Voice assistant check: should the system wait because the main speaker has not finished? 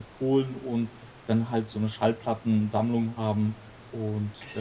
No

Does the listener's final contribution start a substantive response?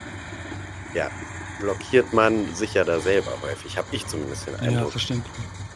Yes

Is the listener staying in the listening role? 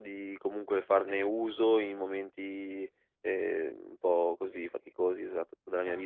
Yes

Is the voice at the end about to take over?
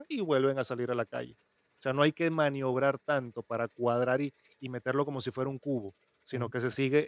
No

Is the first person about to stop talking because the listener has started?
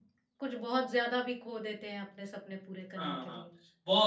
Yes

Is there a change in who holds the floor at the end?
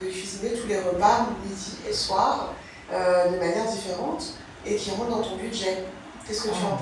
Yes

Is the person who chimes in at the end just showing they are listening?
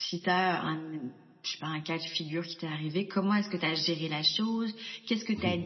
Yes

